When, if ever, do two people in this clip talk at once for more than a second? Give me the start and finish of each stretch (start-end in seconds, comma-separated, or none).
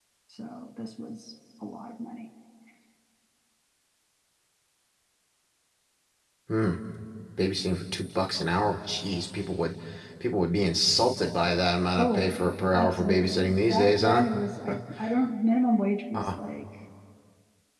12.0-14.2